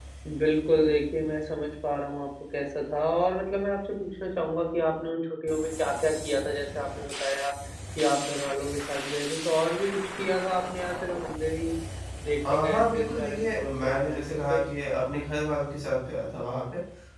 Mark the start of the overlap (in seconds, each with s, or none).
12.5 s